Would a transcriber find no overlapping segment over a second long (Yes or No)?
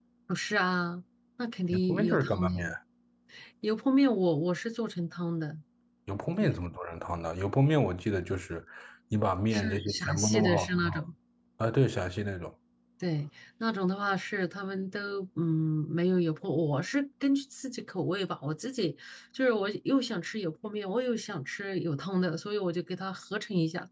No